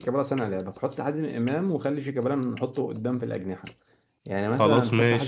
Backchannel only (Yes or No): Yes